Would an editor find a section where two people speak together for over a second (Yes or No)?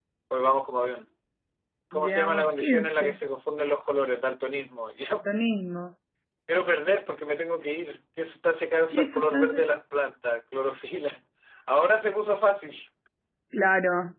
Yes